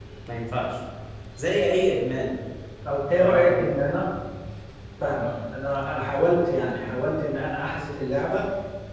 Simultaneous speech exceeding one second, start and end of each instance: none

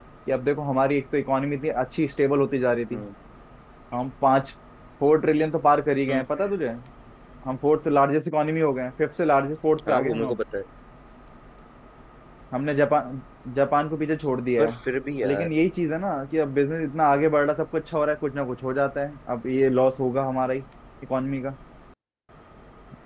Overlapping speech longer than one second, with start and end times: none

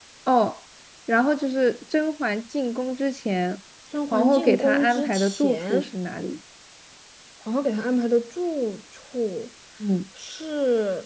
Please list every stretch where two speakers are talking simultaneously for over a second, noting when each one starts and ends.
4.1-5.9

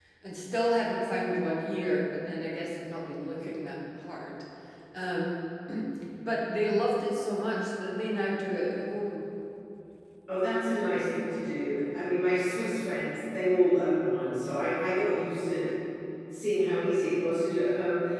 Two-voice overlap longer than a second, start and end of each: none

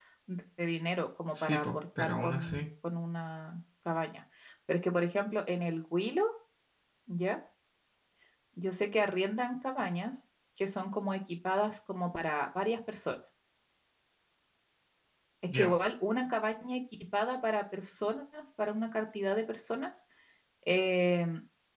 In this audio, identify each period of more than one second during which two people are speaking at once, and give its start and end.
1.4-2.6

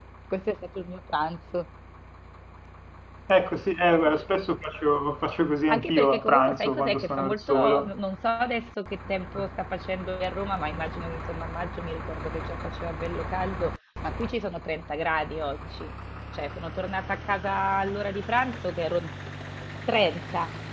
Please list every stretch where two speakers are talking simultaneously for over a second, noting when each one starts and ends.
5.7-7.9

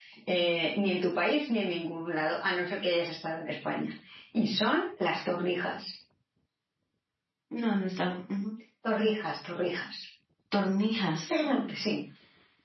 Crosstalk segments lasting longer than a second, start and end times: none

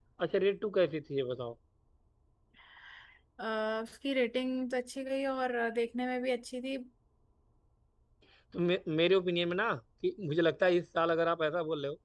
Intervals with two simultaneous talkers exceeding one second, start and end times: none

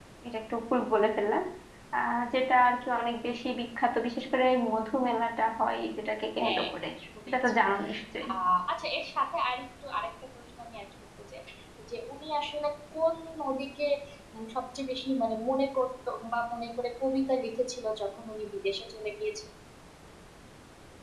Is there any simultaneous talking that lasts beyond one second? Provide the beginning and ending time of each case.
none

